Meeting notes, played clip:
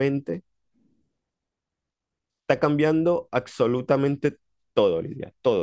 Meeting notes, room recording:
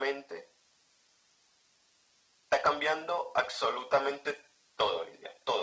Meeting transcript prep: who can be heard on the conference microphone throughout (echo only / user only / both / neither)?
echo only